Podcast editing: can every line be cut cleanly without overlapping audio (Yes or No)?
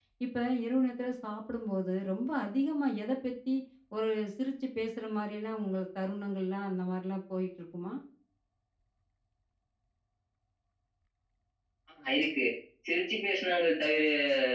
Yes